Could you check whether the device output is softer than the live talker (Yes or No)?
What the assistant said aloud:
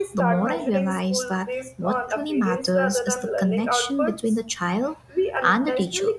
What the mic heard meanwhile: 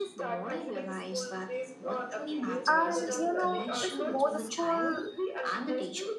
Yes